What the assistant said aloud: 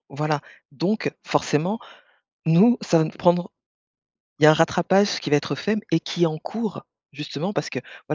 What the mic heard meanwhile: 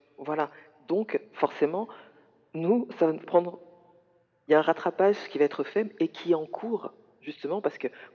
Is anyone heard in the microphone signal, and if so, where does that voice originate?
echo only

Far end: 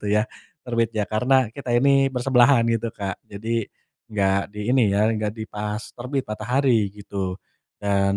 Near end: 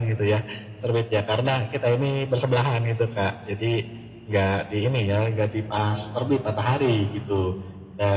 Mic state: echo only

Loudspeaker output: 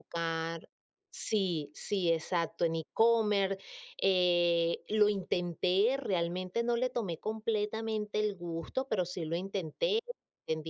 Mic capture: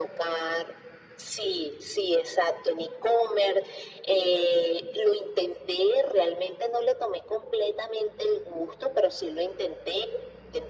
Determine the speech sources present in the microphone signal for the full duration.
echo only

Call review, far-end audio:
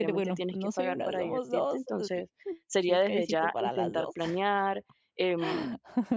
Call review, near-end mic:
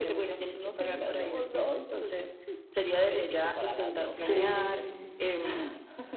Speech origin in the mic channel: both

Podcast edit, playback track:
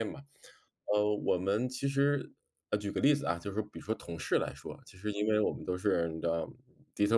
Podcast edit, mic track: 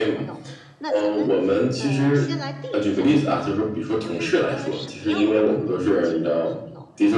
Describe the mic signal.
both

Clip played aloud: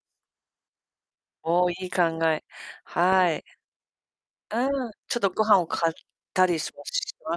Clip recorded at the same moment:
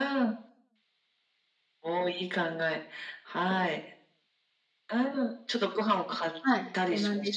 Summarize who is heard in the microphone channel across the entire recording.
both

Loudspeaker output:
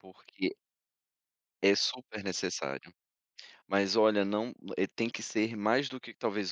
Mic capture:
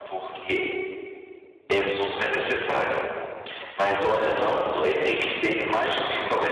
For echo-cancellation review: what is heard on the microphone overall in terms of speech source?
echo only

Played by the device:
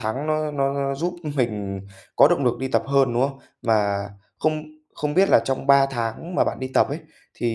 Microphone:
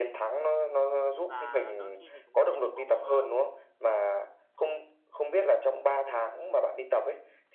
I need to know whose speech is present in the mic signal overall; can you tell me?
both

